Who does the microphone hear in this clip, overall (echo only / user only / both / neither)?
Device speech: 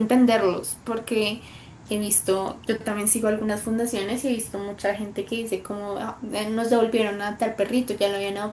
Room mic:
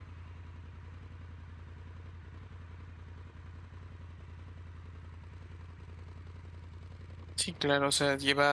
user only